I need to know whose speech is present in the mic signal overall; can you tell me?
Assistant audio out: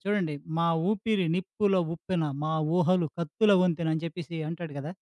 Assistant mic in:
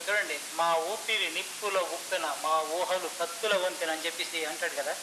echo only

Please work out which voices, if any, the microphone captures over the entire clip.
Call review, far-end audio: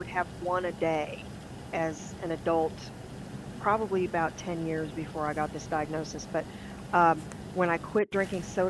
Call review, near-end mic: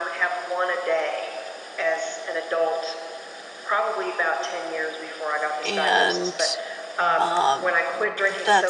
both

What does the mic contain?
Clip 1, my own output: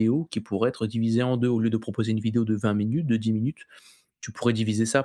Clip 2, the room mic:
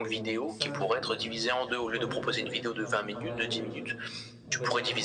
both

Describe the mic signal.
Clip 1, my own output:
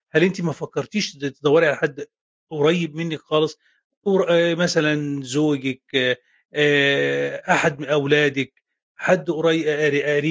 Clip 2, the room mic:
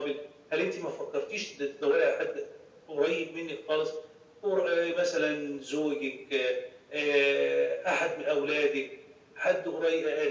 echo only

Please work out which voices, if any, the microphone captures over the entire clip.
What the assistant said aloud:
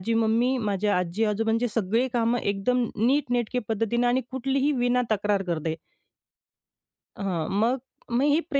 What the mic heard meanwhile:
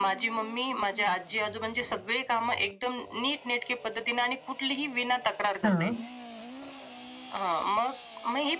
both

